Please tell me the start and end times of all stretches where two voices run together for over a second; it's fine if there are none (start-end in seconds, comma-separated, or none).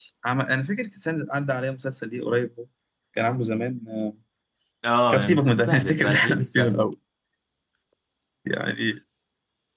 5.1-6.7